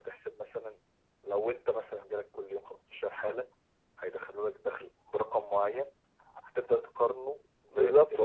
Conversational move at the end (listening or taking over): taking over